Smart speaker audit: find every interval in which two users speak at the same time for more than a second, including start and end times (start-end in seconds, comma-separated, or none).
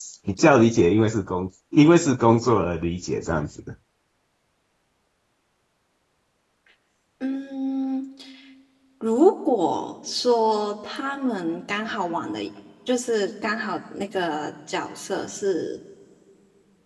none